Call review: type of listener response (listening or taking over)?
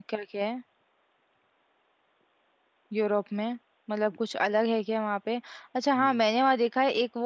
listening